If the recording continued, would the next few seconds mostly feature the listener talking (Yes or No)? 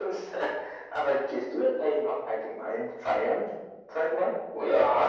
Yes